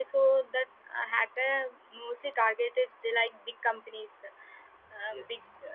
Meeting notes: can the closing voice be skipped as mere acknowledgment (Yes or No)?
No